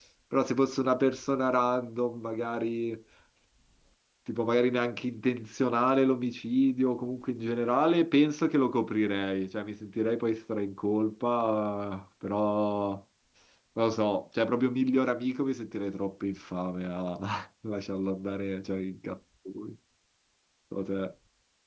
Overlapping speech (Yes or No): No